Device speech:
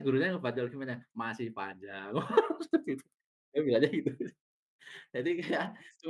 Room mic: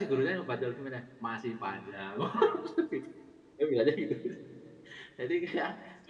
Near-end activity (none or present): none